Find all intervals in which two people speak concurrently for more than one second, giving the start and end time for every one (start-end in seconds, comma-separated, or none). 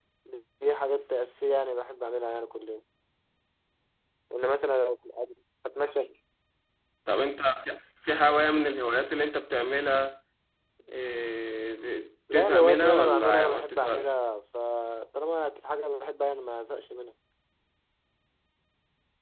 12.3-14.1